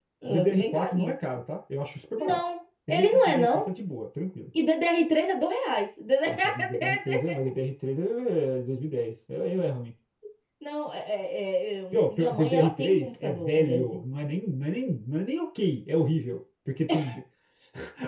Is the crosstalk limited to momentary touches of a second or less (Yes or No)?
No